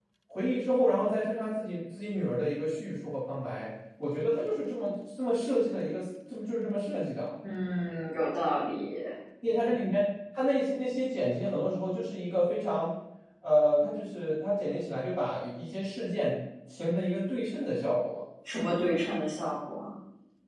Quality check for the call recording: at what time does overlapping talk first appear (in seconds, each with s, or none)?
none